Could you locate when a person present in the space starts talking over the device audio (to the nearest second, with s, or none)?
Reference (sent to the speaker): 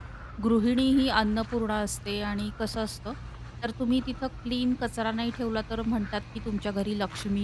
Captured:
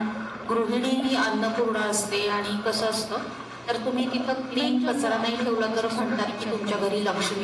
5 s